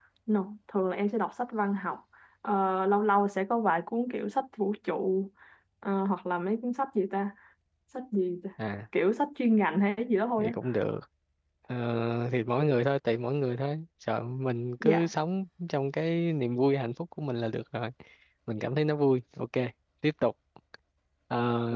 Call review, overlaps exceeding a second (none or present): none